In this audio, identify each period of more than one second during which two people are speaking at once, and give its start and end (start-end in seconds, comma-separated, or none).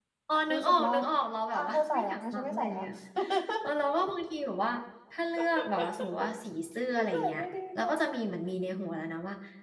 1.5-2.8